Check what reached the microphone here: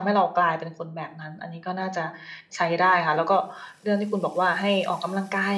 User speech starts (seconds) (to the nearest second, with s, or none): none